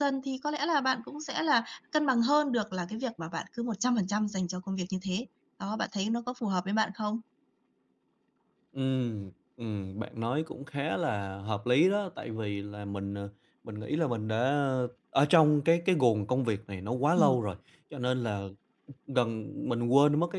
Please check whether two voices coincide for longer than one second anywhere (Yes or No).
No